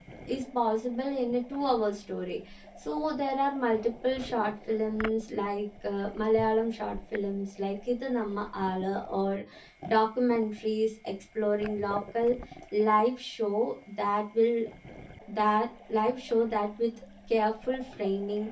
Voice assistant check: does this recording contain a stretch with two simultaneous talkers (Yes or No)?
No